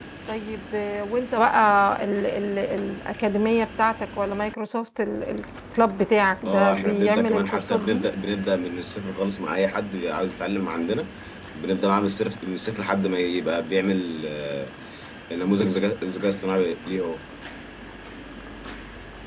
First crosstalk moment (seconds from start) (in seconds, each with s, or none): 6.5 s